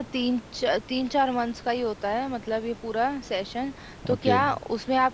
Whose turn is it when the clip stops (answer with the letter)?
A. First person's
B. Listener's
A